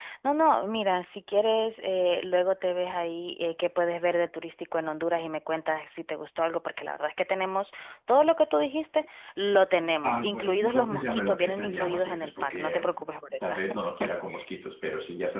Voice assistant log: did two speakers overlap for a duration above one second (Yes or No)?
Yes